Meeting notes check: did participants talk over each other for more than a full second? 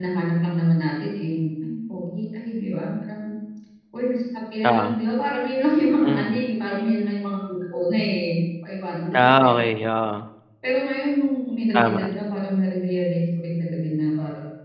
No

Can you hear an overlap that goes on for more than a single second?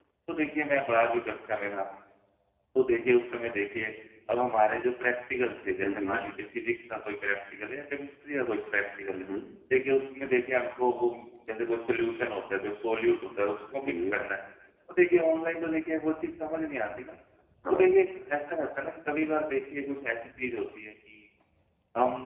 No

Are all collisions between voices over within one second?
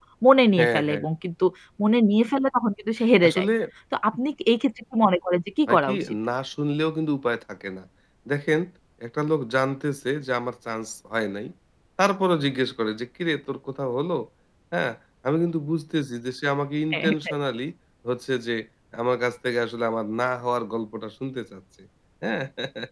Yes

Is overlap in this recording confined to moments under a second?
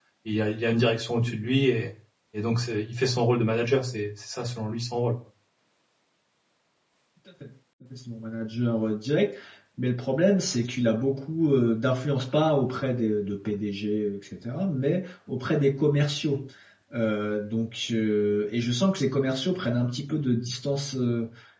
Yes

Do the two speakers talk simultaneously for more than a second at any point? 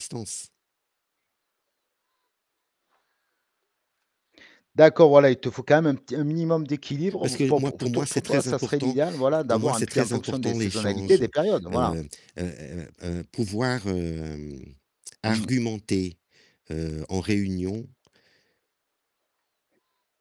Yes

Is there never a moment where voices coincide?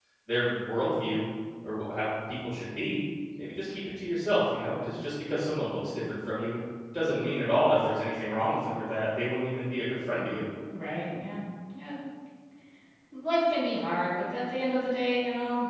Yes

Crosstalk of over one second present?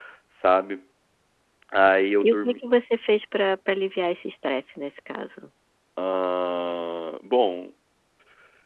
No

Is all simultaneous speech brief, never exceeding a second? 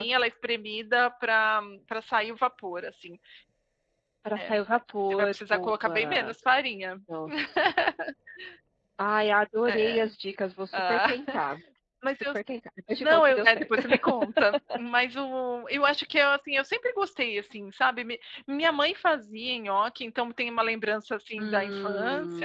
No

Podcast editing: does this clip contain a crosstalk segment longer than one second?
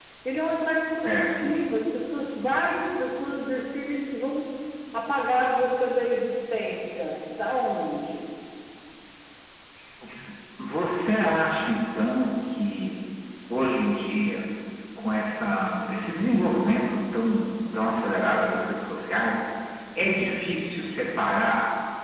No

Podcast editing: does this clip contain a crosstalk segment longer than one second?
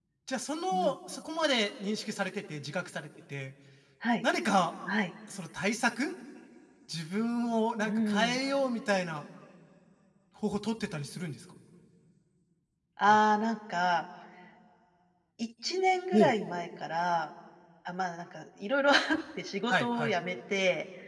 No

